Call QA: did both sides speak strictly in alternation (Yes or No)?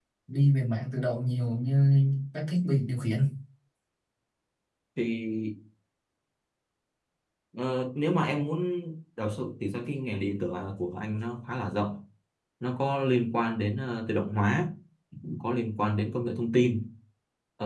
Yes